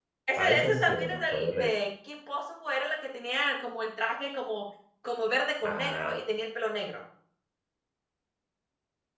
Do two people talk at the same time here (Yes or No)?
Yes